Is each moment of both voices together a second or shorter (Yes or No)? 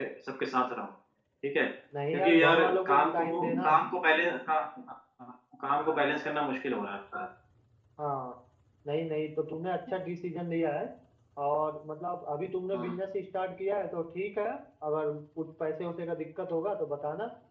No